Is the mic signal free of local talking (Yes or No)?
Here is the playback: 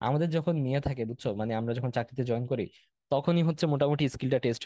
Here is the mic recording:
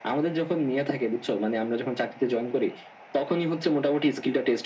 Yes